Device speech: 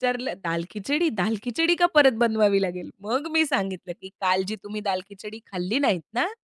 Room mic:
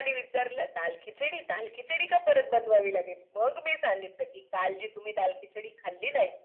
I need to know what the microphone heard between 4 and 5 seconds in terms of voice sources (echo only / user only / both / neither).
echo only